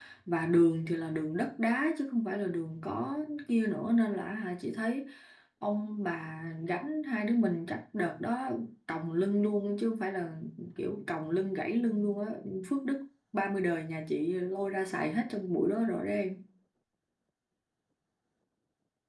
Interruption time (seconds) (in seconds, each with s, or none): none